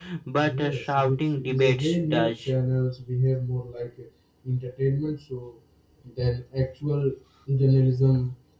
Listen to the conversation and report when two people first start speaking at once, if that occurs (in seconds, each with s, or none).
0.6 s